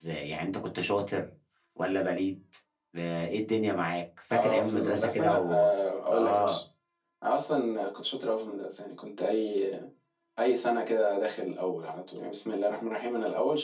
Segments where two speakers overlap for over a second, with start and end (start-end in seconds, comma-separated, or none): 4.3-5.7